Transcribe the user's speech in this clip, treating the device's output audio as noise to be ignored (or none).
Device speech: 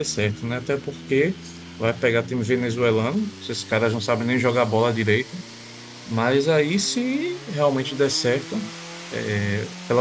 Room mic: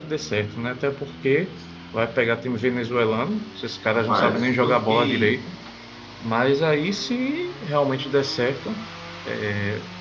Rapaz, eu fiquei.